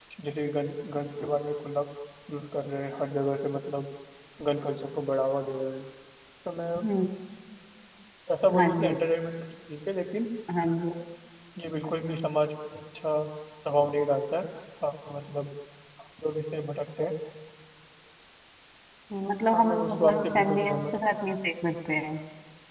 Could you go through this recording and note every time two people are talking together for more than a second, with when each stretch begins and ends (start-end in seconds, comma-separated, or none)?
19.5-21.0